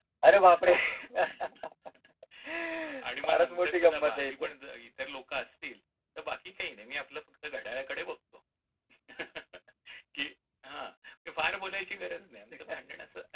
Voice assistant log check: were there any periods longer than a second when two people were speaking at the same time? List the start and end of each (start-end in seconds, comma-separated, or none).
3.2-4.5